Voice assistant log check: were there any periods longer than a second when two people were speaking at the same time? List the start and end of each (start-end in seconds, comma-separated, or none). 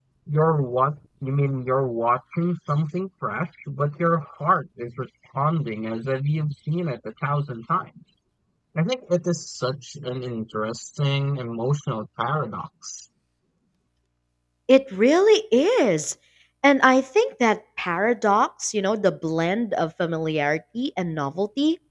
none